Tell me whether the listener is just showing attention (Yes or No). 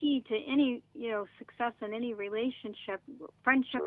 Yes